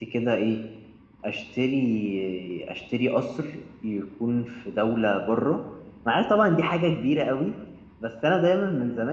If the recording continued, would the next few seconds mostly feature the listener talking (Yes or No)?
No